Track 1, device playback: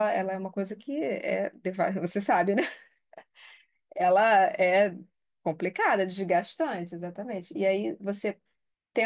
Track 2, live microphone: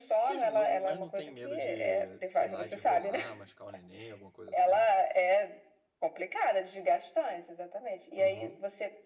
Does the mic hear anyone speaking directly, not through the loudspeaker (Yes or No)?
Yes